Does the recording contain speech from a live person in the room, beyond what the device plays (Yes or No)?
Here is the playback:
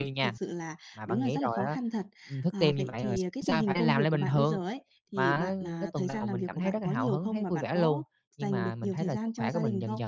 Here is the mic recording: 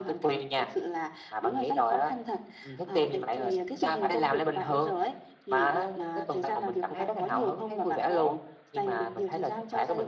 No